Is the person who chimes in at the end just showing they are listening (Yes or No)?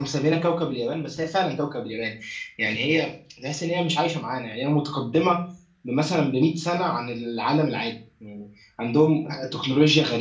Yes